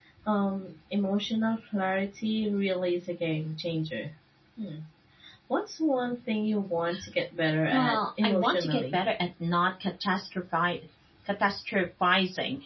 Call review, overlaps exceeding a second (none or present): present